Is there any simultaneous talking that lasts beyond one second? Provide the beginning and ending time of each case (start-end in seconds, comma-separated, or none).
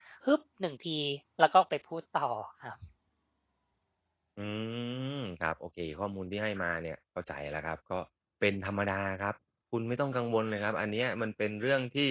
none